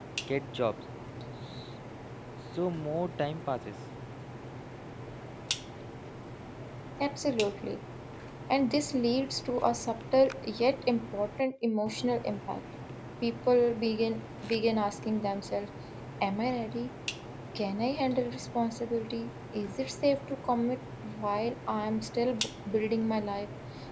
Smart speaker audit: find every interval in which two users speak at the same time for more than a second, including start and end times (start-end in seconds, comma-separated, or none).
none